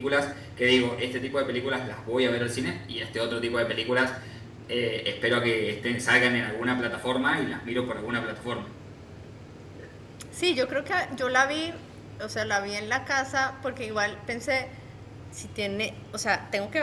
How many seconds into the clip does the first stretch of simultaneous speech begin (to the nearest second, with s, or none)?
none